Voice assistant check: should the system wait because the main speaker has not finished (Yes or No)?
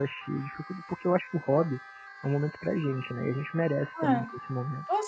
No